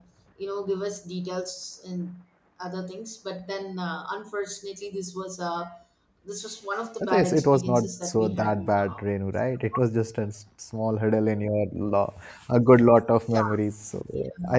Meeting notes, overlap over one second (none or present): present